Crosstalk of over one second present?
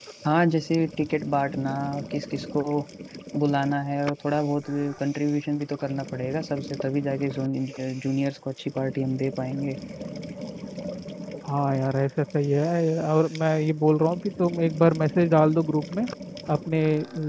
No

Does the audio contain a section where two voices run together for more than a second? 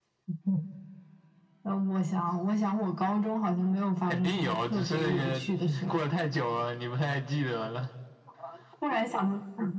Yes, from 4.0 s

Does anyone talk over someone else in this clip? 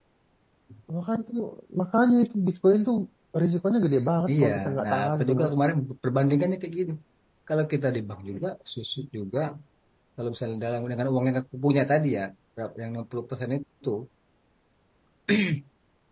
Yes, from 4.3 s

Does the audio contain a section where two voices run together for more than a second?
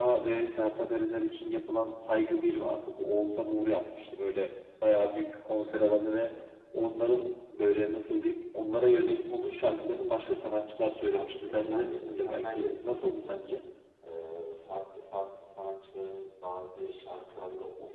Yes, from 11.1 s

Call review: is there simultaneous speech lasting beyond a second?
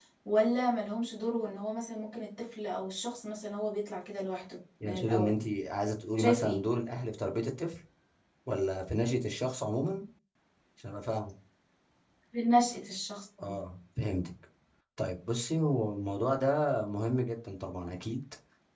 No

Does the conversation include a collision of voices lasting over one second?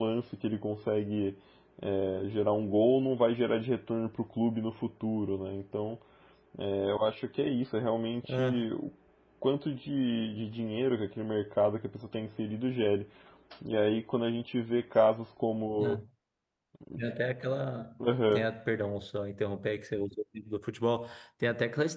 No

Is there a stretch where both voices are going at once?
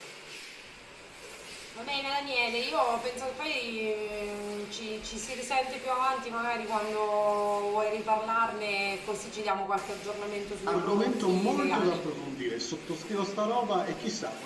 Yes, from 10.7 s

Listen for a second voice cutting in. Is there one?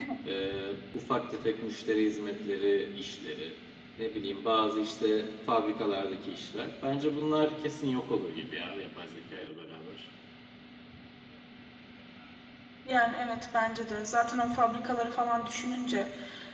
No

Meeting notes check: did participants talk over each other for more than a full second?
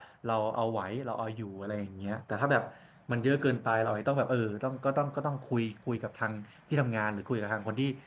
No

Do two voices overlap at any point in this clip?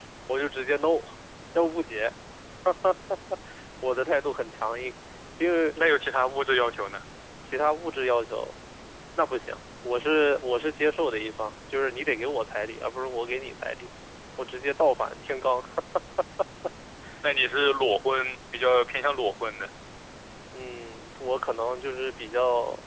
No

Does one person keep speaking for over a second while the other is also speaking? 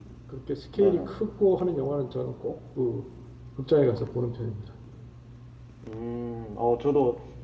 No

